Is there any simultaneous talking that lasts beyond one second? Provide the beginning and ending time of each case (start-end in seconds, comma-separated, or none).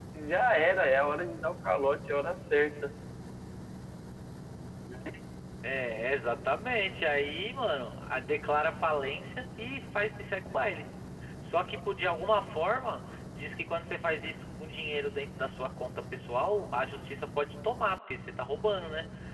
none